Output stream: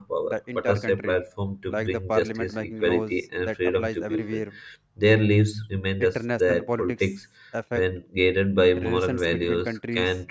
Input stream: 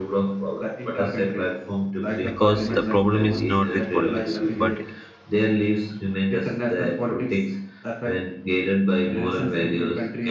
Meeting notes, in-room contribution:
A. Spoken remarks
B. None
A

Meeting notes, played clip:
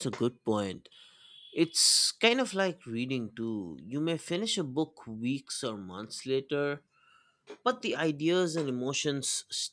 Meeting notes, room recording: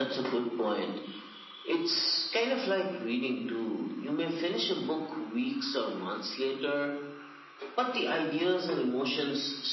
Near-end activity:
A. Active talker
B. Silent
B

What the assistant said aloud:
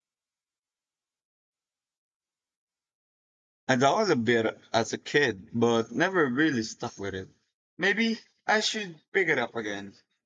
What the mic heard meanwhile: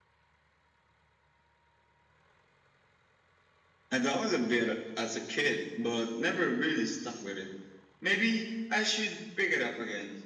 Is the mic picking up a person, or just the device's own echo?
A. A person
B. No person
B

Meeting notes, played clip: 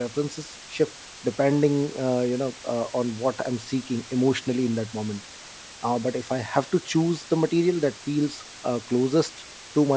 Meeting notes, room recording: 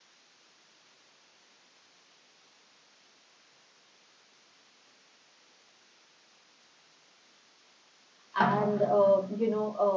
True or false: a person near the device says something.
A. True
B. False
A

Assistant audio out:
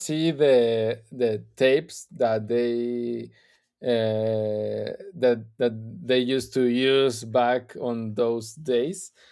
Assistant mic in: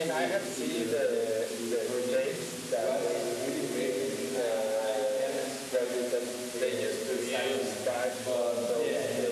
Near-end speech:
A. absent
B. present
B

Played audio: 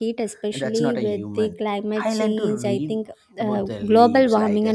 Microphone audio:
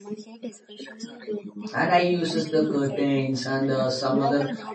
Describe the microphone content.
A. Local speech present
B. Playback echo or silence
A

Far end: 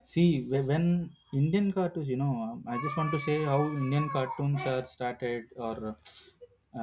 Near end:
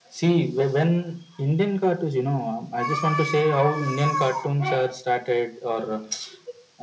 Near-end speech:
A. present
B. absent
B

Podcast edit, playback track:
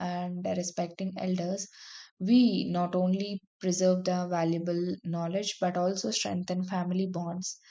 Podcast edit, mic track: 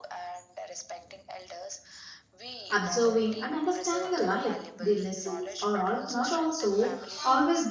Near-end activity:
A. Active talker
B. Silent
A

